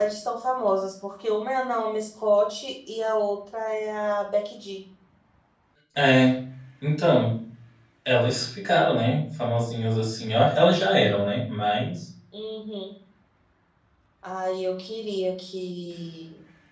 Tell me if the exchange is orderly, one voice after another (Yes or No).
Yes